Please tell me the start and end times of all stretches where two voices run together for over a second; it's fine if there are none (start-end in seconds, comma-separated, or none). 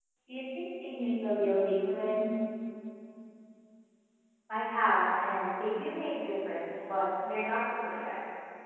none